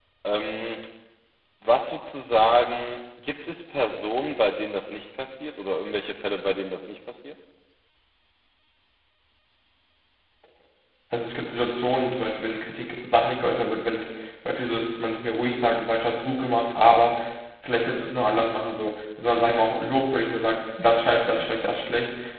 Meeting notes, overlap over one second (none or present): none